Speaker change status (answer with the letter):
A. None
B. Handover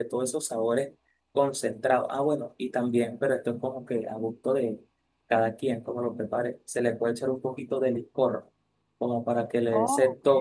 A